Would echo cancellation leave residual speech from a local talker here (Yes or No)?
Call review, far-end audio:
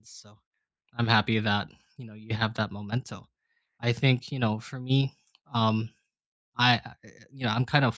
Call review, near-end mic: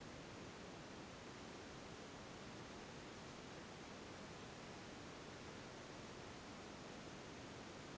No